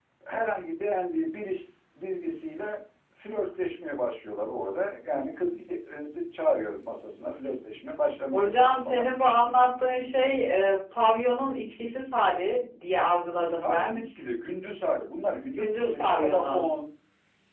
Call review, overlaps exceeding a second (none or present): present